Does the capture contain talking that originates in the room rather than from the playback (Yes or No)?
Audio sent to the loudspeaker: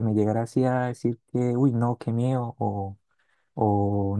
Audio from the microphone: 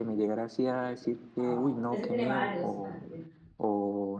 Yes